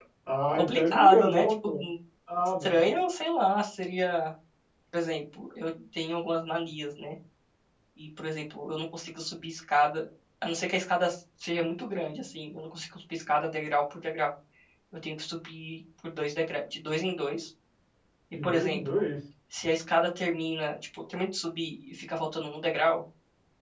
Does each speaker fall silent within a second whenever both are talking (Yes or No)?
No